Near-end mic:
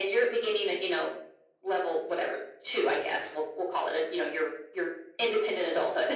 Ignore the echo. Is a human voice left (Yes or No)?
No